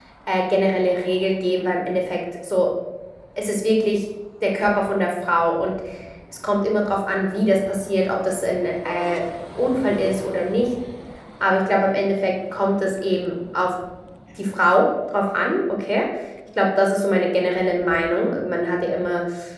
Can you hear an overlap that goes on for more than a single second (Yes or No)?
No